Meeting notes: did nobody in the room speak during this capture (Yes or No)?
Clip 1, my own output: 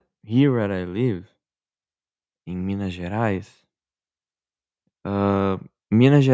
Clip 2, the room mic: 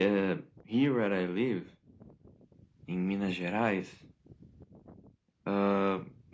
Yes